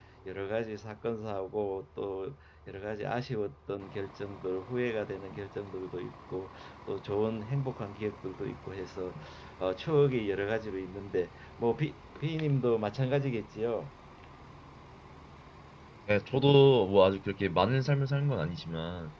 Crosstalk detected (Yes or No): No